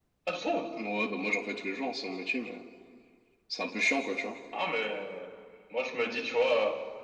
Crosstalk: none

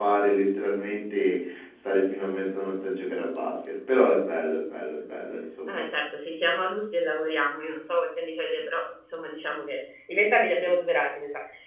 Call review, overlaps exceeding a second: none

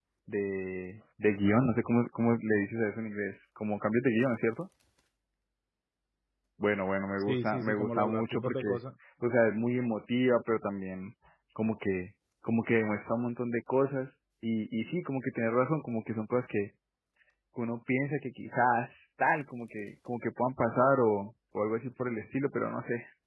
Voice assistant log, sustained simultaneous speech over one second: present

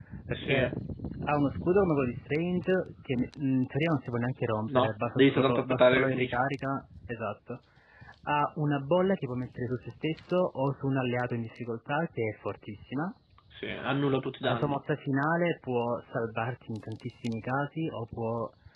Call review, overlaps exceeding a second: present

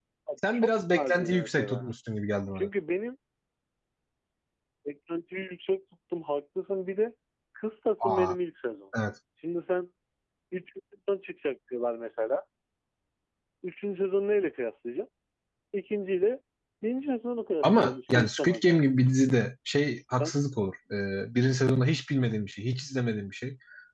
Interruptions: present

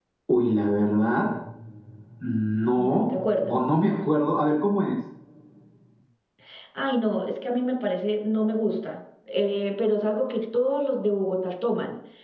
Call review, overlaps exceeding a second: none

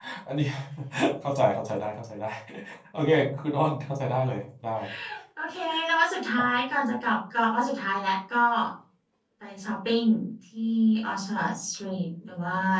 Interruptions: none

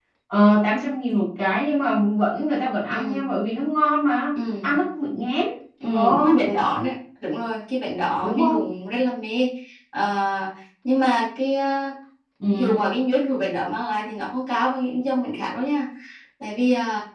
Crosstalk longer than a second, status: none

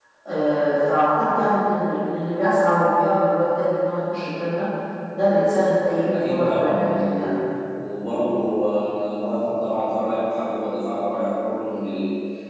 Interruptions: present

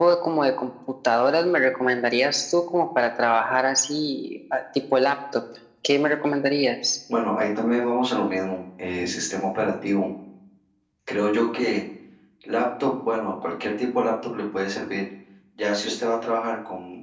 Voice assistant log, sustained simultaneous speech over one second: none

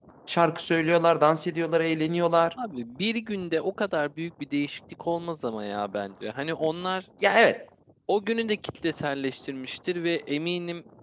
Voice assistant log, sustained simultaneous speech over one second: none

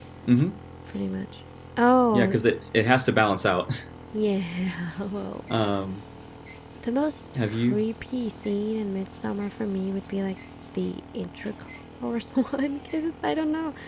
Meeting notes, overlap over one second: none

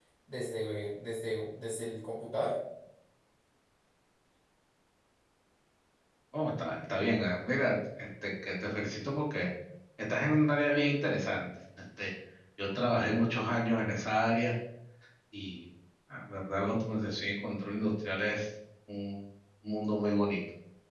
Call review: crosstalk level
none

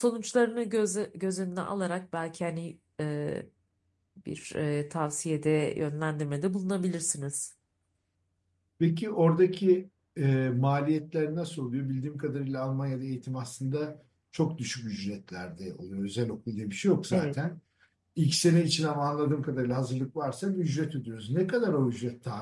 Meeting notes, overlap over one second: none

